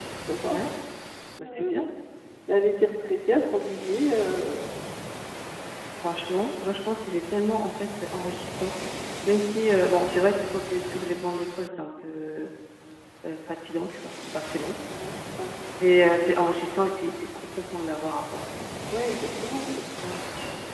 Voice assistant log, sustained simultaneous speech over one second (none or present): none